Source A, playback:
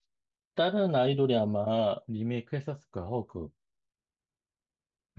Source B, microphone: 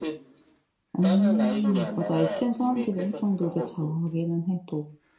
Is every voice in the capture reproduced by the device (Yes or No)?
No